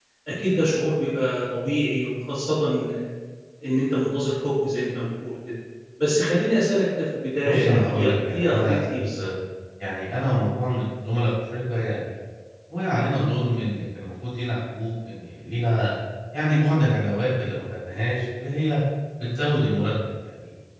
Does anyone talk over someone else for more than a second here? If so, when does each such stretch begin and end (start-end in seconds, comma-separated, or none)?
7.4-9.3